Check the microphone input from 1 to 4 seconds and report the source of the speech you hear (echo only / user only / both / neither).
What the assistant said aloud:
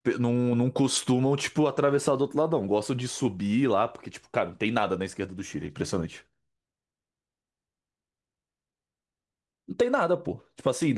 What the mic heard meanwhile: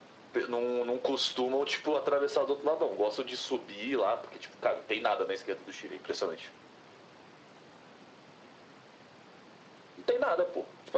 echo only